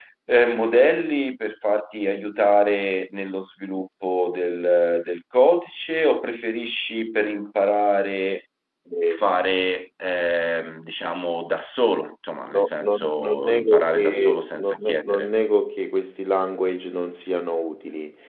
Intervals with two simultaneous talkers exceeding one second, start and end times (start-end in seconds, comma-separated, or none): 12.5-15.3